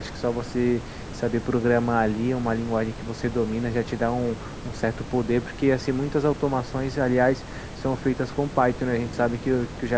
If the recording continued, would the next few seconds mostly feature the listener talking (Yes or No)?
No